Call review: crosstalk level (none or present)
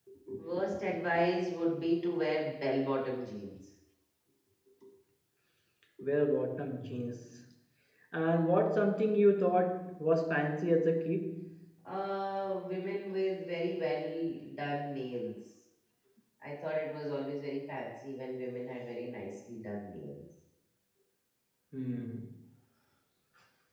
none